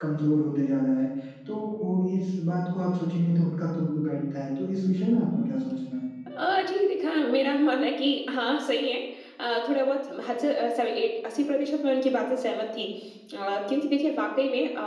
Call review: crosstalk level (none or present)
none